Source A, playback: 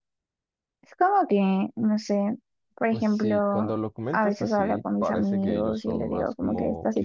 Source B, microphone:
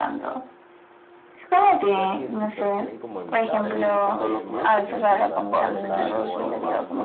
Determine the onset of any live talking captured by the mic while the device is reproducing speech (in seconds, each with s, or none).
1.9 s